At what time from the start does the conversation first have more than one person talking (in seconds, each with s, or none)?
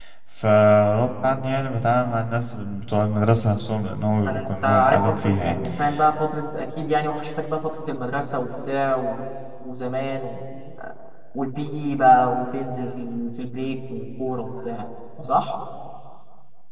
4.3 s